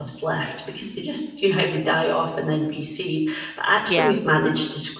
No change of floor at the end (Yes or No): Yes